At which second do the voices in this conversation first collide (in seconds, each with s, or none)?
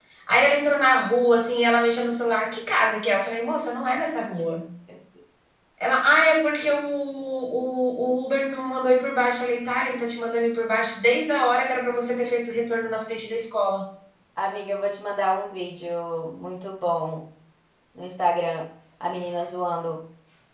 none